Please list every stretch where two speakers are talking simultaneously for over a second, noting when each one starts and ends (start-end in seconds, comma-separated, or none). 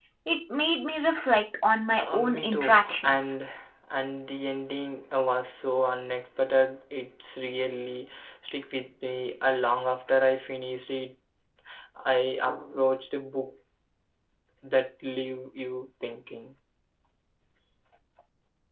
2.0-3.3